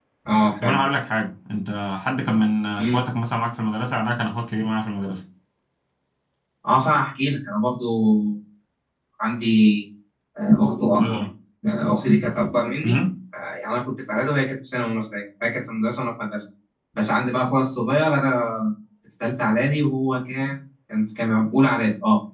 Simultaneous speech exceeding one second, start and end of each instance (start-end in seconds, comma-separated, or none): none